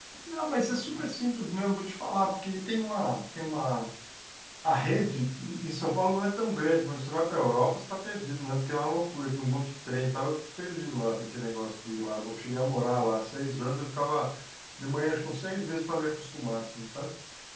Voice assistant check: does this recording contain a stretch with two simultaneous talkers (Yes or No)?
No